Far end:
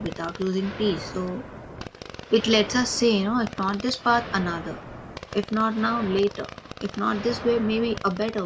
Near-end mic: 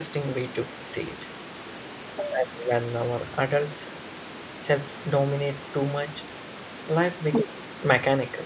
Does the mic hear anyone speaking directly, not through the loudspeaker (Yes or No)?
Yes